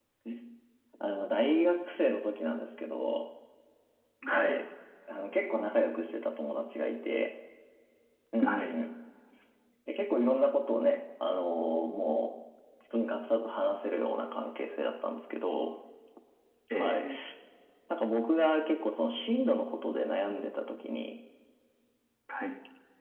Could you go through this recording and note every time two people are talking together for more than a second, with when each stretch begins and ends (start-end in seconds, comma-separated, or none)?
none